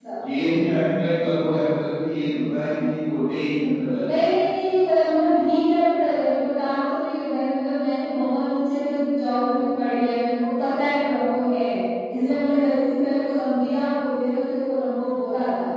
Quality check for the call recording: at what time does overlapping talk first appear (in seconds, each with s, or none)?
none